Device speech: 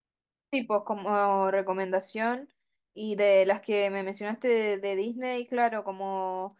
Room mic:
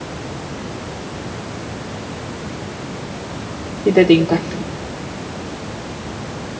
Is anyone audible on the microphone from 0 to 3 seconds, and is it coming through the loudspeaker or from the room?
neither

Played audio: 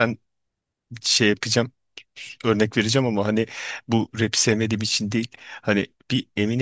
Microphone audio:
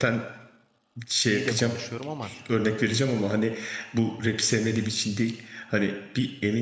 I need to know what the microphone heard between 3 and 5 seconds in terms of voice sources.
echo only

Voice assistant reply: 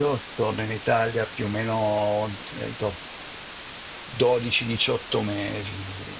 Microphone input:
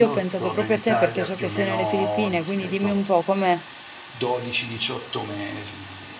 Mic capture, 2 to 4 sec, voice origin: both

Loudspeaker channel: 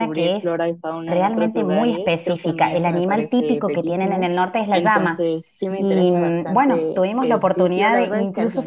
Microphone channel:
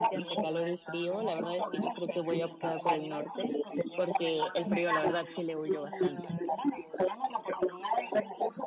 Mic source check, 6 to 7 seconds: both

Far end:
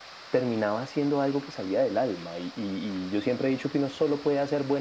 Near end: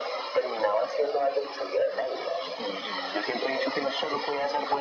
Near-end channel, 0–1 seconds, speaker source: echo only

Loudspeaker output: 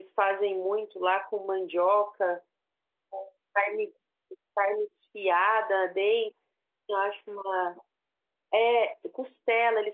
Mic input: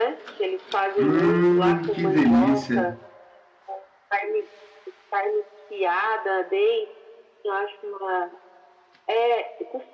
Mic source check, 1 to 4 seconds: both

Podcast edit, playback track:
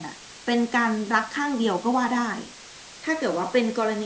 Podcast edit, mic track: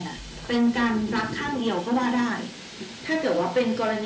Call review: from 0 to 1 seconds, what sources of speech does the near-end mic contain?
echo only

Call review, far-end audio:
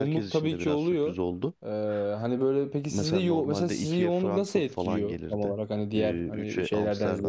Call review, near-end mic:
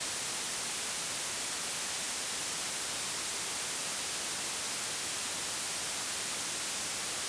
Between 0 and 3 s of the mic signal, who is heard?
neither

